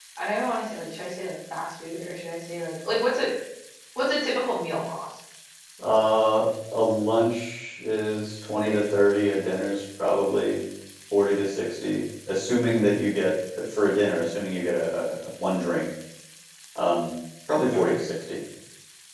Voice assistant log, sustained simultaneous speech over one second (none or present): none